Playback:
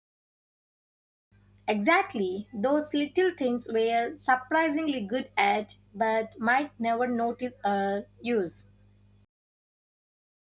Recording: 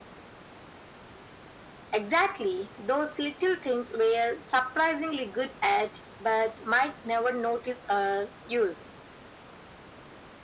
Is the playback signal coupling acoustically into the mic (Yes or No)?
Yes